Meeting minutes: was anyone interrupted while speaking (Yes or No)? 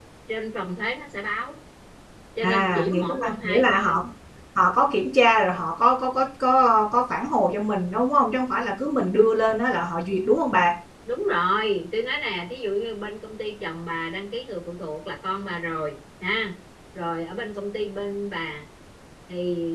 Yes